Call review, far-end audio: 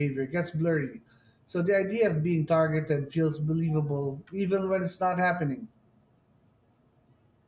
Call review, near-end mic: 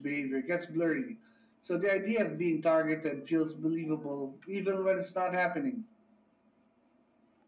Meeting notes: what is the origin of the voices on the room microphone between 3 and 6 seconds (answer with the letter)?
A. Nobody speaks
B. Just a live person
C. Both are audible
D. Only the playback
D